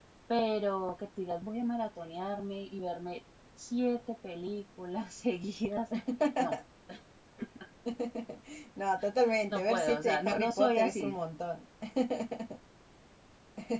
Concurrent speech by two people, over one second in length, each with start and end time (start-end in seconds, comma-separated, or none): 9.5-11.2